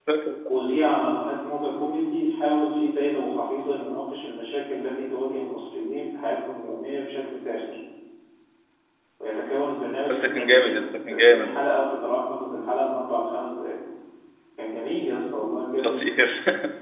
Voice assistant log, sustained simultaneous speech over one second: present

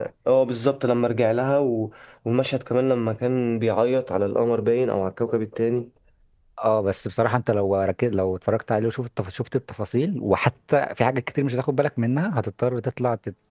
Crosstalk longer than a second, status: none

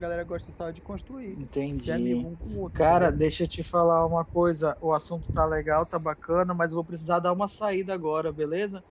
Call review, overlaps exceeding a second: none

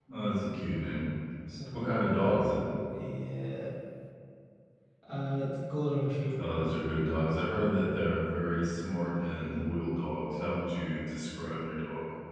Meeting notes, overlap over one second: none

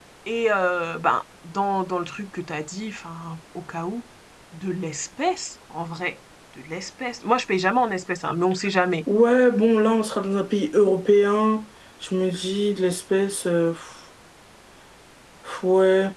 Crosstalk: none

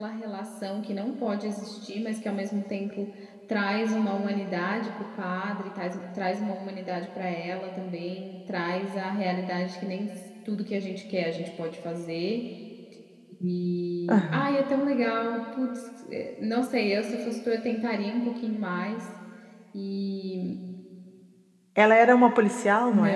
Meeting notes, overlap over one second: none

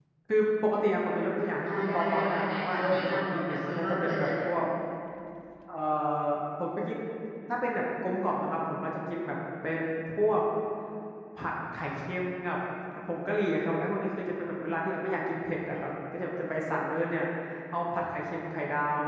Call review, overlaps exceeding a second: present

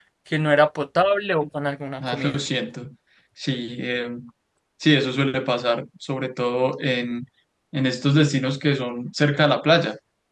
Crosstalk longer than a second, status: none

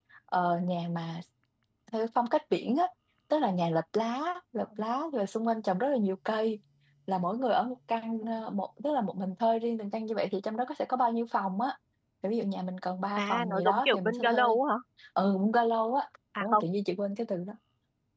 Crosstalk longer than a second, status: present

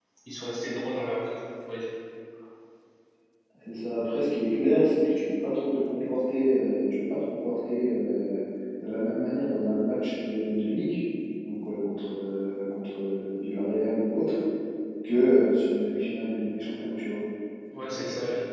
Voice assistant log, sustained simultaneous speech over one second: none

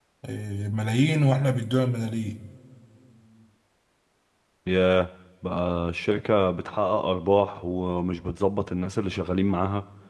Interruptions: none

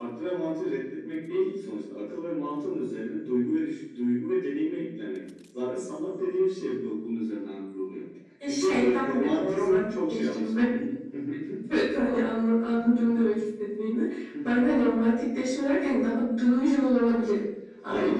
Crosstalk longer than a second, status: present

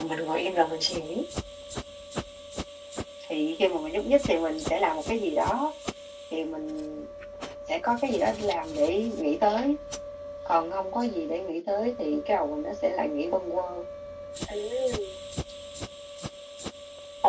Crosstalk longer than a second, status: none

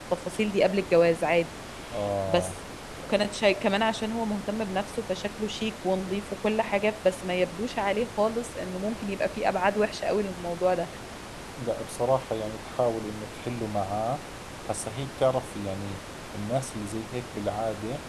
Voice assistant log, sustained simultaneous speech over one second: none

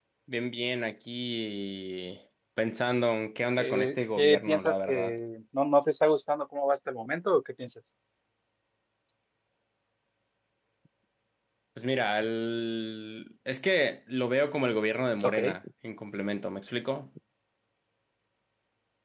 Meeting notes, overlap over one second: present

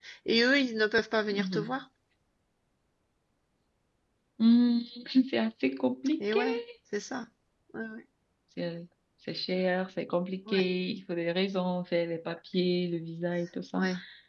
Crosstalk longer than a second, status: none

